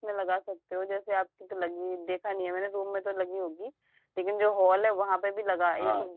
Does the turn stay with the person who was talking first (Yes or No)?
Yes